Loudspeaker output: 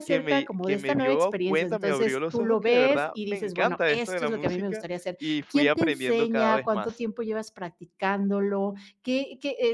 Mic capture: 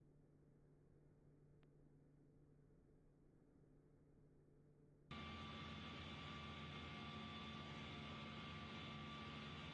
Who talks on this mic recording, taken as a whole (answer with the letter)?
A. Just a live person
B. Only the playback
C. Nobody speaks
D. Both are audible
C